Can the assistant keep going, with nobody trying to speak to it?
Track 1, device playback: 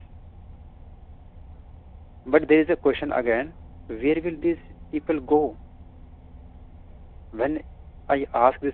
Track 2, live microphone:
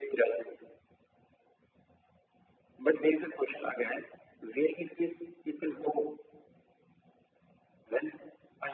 Yes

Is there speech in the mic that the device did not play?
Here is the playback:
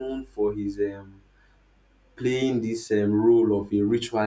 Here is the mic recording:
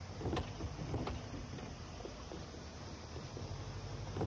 No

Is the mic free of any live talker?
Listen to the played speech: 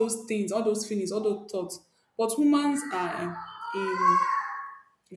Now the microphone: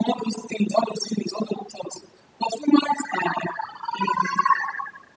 Yes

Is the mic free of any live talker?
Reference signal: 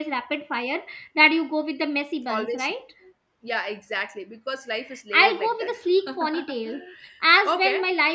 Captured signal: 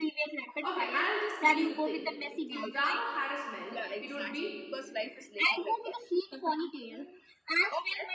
No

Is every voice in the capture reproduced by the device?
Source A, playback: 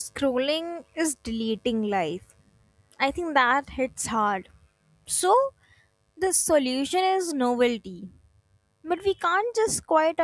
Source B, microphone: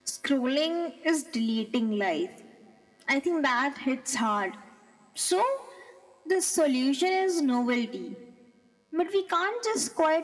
Yes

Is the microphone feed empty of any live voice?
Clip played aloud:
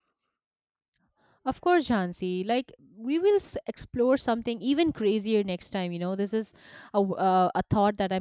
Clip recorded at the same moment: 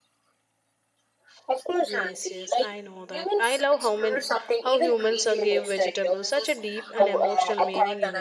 No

